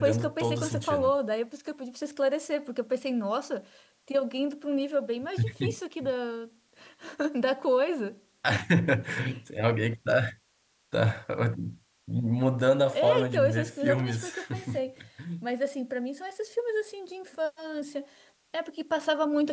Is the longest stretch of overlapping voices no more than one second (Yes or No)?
No